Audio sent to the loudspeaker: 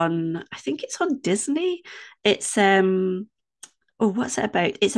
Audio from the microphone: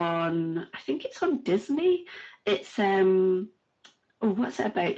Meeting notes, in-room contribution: none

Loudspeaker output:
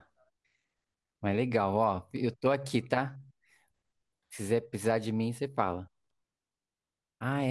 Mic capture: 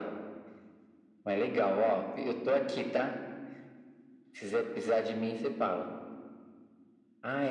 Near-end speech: none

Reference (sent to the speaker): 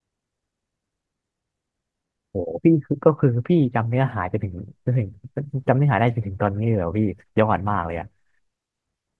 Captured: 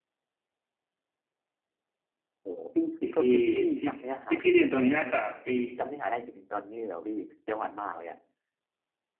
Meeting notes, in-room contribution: present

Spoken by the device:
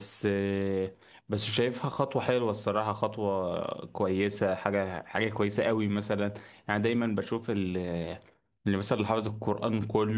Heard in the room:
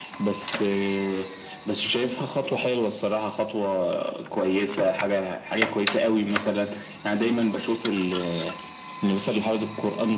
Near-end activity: none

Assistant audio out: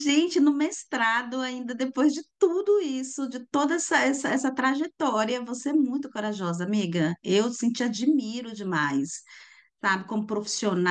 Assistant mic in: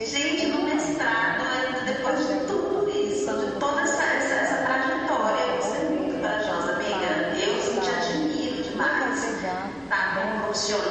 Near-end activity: present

